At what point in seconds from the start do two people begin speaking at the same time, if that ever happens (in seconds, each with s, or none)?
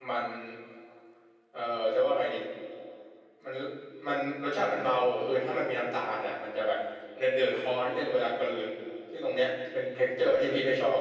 none